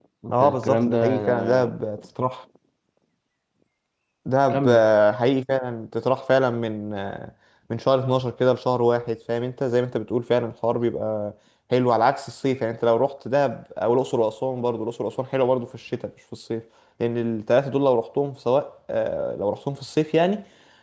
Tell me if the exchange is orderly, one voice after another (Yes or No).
No